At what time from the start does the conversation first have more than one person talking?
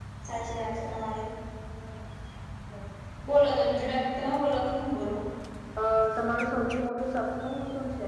none

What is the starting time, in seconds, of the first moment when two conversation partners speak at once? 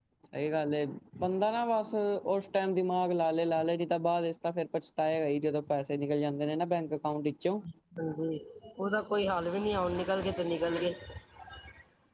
none

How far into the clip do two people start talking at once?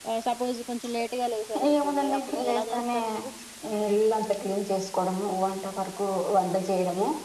1.6 s

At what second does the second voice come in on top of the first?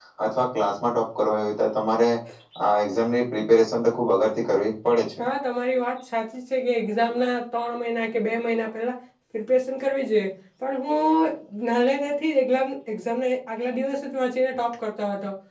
none

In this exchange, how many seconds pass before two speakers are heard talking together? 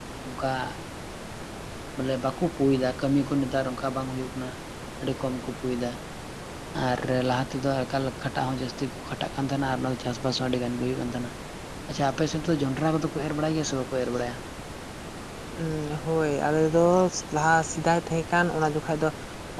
none

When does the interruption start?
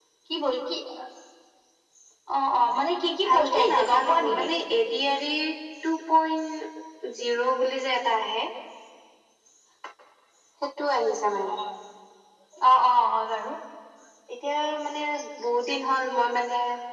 3.2 s

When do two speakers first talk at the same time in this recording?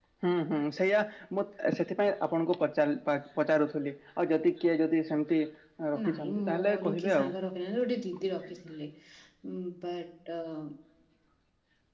6.0 s

